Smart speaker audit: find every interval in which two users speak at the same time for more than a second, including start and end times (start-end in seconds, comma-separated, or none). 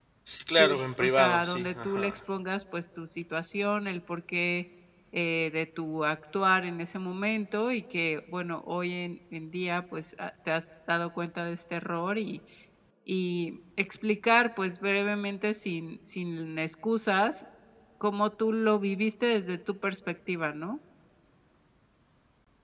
0.5-2.2